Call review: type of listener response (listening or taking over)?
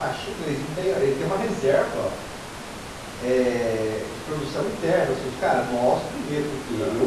listening